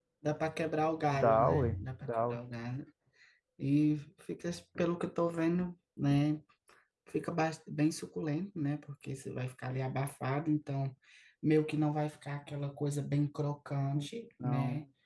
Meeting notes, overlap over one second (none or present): present